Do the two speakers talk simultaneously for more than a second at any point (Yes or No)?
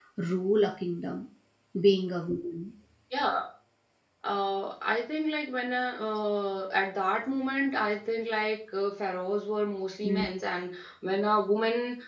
No